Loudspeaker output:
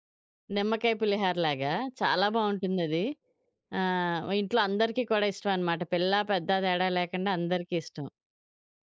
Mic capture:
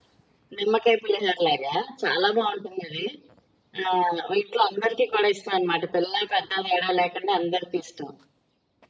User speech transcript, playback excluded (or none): none